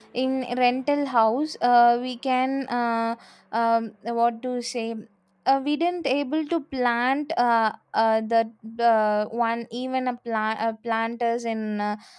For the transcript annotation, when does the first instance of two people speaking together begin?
none

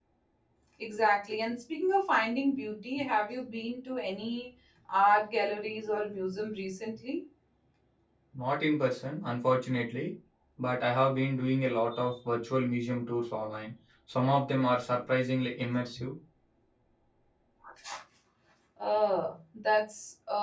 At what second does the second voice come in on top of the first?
none

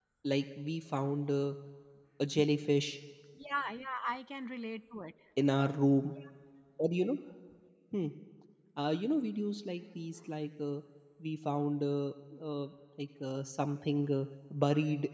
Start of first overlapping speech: none

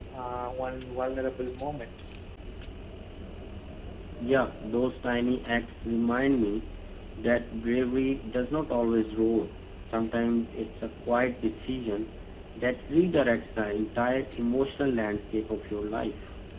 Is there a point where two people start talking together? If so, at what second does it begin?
none

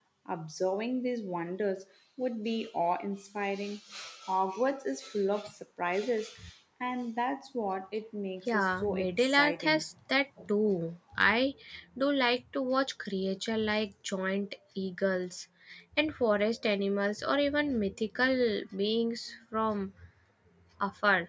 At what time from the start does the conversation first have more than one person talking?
8.5 s

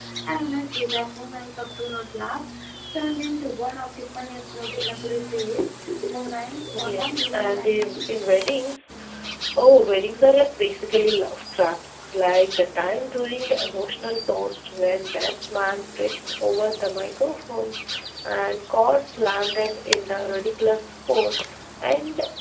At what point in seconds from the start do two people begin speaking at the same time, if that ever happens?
6.7 s

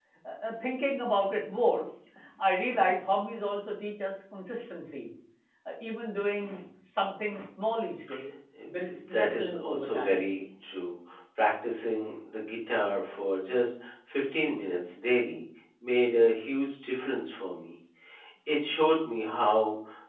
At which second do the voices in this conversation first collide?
8.8 s

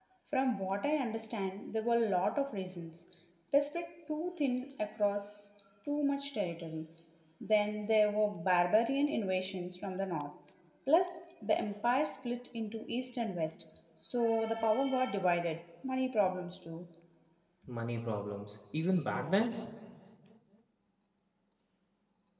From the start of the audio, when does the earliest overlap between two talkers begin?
none

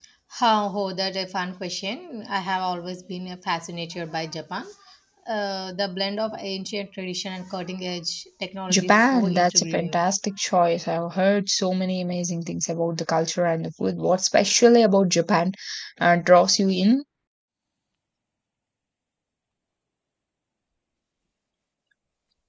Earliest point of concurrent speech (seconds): 8.7 s

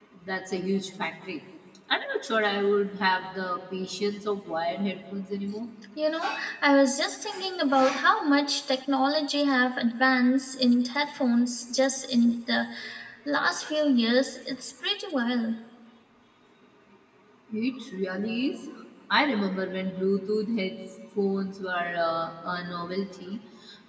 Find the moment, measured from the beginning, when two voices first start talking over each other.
none

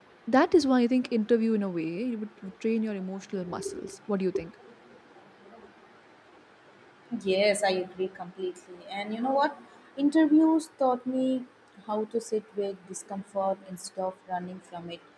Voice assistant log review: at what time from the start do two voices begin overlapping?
none

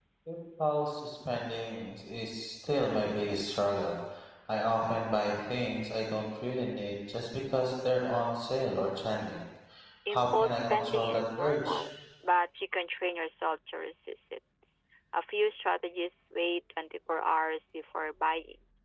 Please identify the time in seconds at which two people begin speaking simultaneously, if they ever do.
10.1 s

